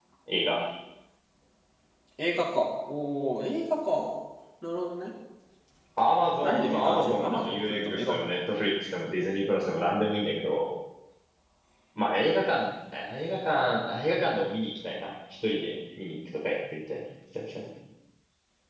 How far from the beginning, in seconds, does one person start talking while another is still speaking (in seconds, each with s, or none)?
6.4 s